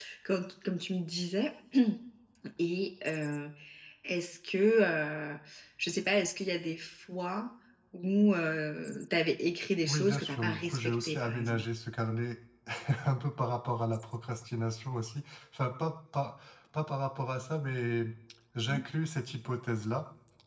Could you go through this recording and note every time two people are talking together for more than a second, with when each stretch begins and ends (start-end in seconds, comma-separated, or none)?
9.9-11.6